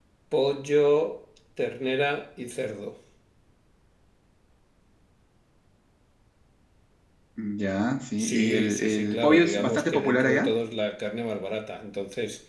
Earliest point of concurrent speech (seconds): 8.2 s

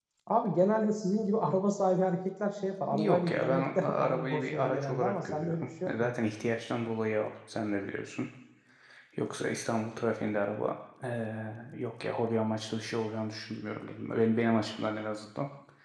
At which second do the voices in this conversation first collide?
2.9 s

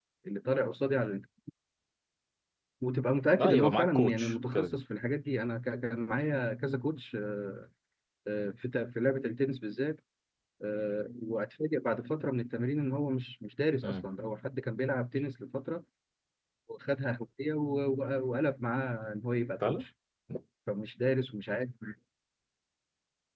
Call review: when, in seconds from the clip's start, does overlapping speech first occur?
3.4 s

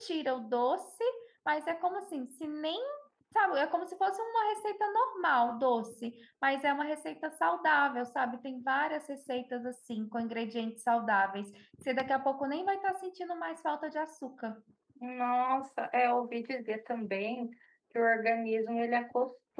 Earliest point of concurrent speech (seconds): none

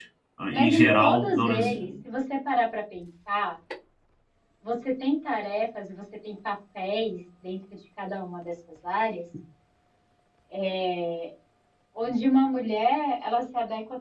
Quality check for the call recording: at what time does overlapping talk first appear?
0.5 s

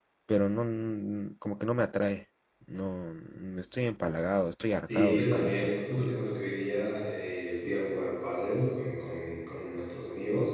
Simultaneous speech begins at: 4.8 s

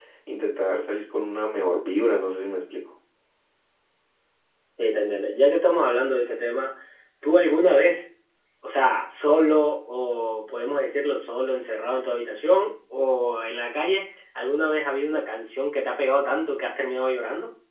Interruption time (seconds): none

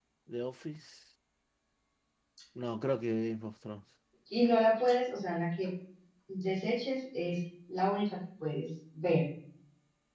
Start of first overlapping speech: none

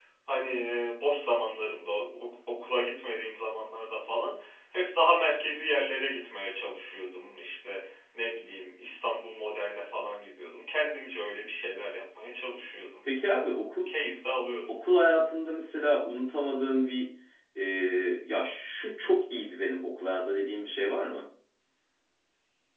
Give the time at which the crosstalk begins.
none

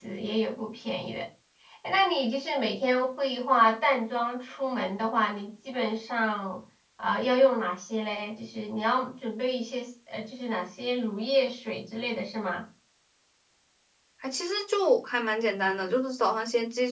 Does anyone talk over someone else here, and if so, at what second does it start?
none

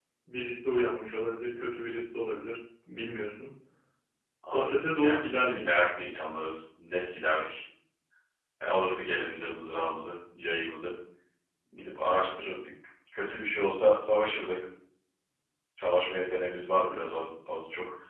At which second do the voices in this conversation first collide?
4.5 s

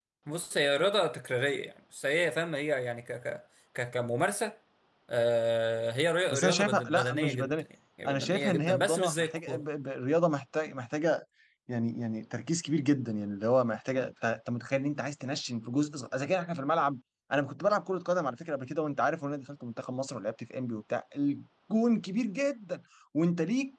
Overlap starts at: 6.3 s

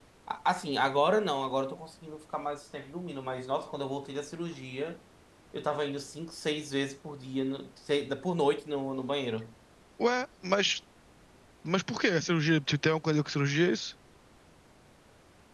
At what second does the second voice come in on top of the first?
none

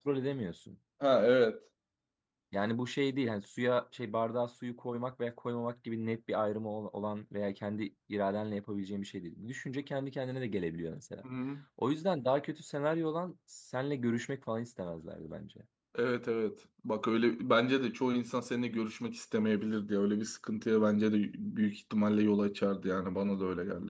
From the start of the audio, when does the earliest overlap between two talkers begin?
none

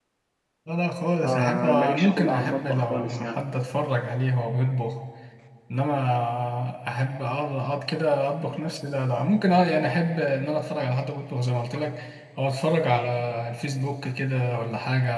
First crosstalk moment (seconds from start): 1.2 s

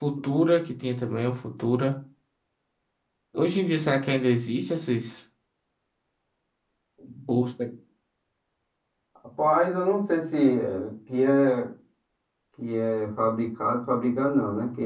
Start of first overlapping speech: none

